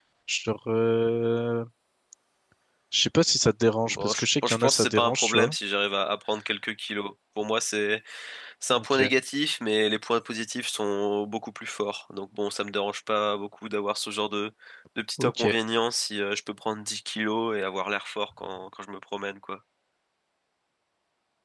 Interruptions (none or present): present